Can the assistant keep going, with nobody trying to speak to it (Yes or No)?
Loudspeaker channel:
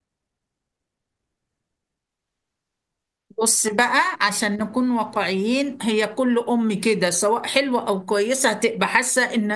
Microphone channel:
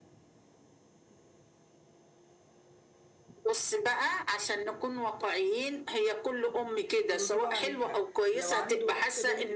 No